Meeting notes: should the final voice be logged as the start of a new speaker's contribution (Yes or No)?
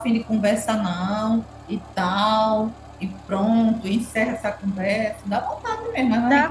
Yes